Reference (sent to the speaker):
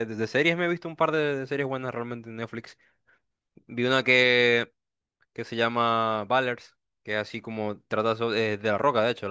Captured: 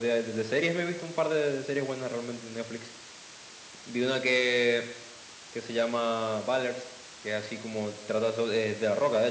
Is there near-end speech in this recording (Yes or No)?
No